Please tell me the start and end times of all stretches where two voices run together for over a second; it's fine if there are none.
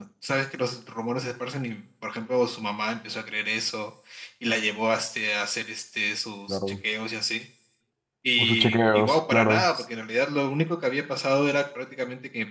8.4-9.6

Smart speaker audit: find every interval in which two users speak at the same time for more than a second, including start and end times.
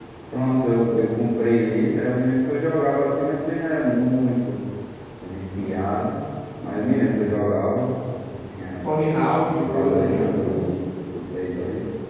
9.4-10.6

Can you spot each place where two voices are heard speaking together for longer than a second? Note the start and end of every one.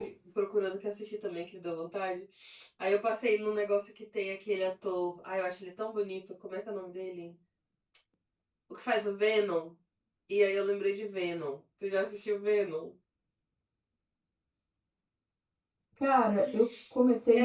none

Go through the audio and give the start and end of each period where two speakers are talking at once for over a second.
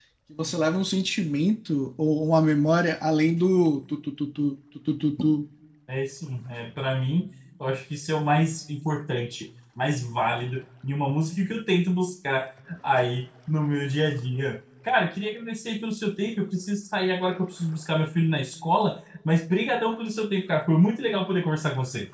none

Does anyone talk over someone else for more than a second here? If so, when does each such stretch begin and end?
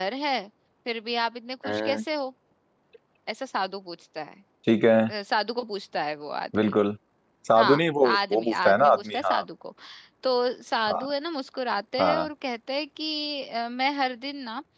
7.6-9.4

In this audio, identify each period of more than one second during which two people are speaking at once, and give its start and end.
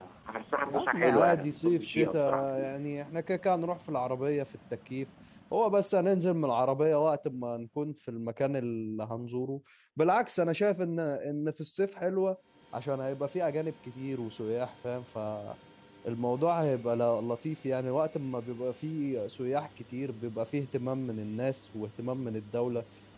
0.7-2.7

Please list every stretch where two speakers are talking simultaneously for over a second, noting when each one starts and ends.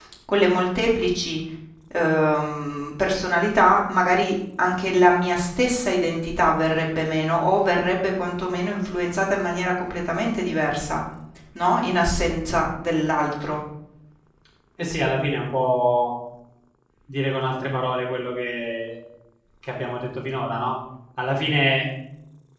none

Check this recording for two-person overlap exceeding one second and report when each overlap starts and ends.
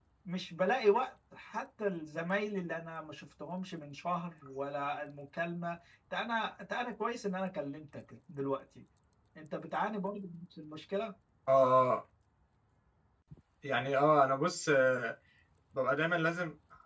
none

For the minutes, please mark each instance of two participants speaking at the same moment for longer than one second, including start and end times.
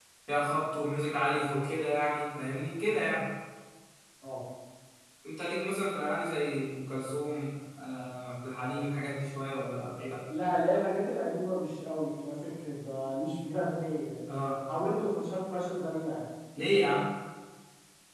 none

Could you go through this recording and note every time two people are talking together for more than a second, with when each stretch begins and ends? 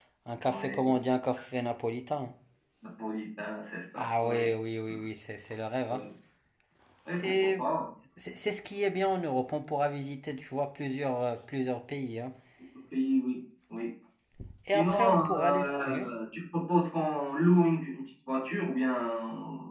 14.7-16.1

